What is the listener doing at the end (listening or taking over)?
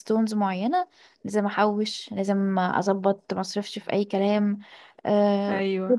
listening